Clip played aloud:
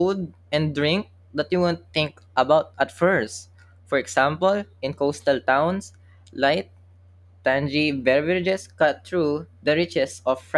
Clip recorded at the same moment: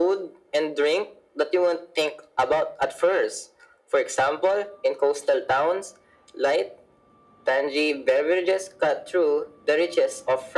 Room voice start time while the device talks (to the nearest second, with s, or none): none